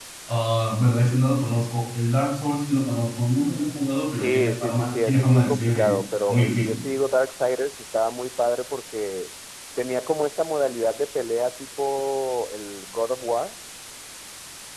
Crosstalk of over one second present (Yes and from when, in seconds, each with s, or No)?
Yes, from 4.1 s